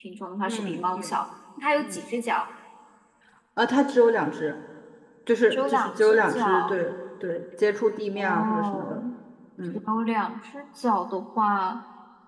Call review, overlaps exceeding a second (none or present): present